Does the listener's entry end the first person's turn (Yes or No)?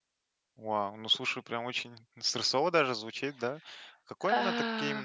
No